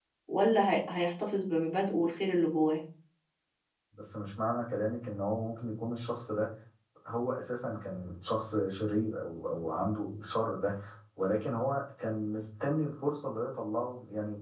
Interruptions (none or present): none